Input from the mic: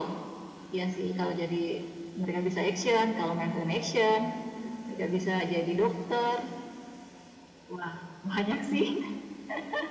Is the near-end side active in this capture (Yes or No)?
No